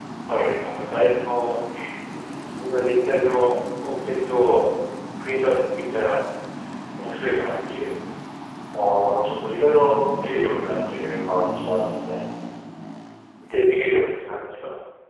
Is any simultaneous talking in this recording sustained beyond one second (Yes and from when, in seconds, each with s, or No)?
No